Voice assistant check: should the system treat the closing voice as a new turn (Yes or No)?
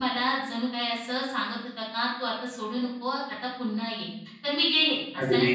No